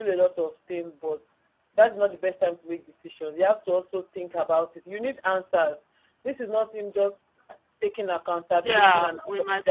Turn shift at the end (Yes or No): Yes